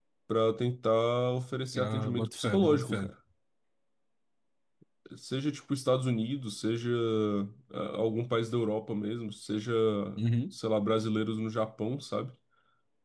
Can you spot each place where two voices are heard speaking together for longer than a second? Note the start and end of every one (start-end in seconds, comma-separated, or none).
1.8-3.1